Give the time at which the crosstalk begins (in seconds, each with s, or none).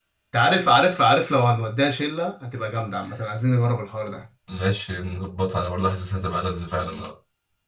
none